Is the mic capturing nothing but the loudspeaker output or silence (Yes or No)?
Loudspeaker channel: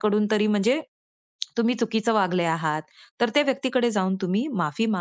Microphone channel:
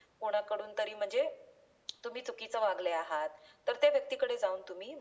Yes